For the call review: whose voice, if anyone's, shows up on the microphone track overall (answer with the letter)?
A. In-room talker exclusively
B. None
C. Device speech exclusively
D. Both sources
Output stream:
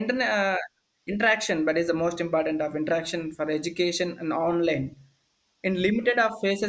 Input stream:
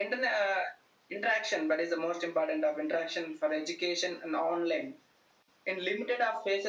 C